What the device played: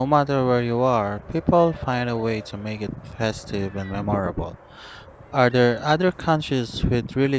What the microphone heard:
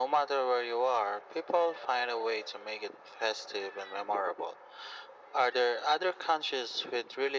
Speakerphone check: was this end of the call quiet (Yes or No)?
Yes